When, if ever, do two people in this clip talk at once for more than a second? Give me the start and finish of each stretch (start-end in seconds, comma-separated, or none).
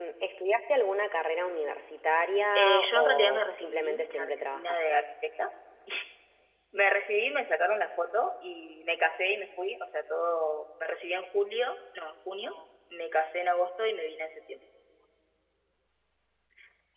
2.6-5.0